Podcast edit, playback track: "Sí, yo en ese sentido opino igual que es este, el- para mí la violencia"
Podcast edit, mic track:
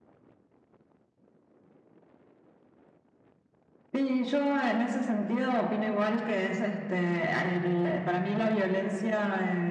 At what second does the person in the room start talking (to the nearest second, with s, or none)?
none